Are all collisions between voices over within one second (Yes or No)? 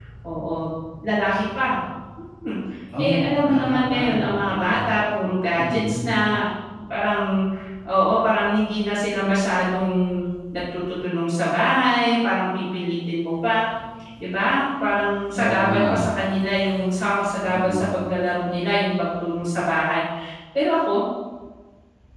No